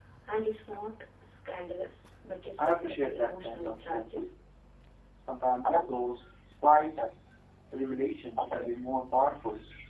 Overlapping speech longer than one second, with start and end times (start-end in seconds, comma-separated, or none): 2.6-4.0